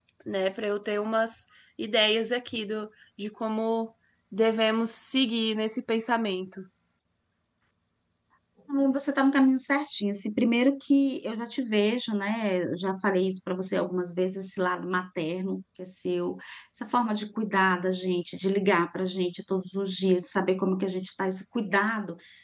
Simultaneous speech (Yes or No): No